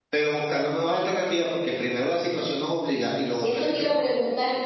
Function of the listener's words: taking over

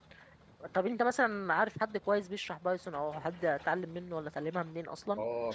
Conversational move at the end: taking over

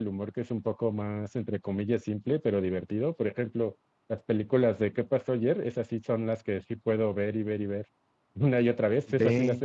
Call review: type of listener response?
listening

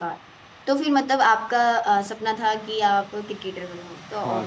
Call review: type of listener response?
taking over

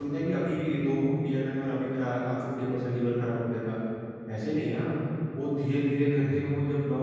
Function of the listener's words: listening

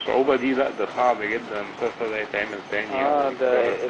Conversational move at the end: taking over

